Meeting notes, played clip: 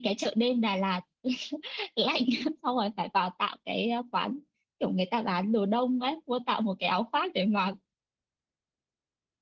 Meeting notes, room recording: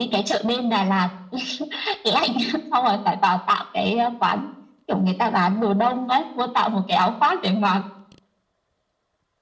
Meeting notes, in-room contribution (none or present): none